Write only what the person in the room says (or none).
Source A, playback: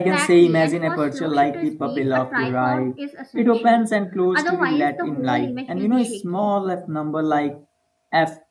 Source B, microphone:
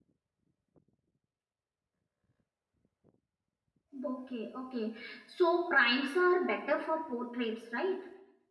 Okay, okay. So primes are better for portraits, right?